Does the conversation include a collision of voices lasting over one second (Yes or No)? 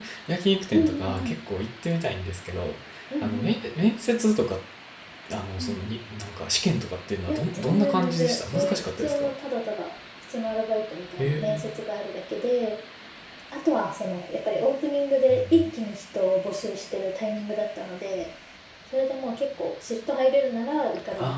Yes